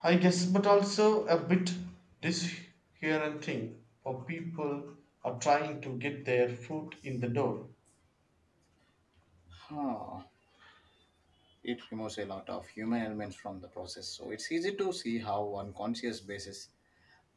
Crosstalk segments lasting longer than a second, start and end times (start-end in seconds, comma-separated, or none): none